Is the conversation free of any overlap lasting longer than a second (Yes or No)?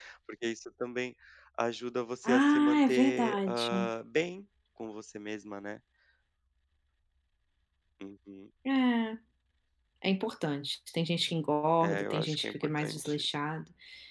No